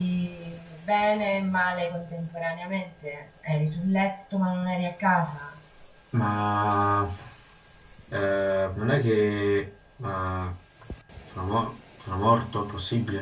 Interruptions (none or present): none